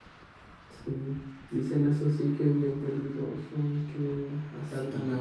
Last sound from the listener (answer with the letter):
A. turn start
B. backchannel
B